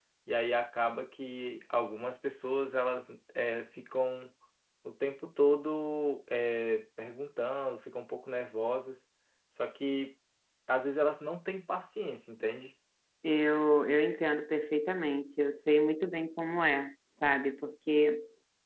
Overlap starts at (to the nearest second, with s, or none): none